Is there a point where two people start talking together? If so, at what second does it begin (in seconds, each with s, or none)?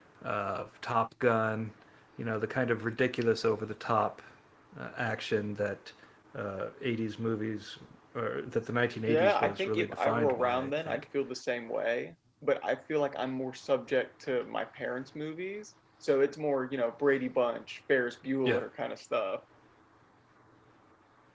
9.0 s